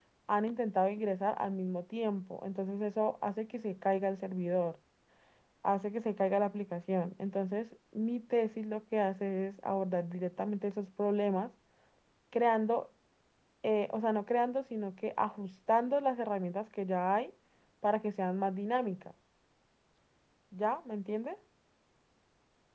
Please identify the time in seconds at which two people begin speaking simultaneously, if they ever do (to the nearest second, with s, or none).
none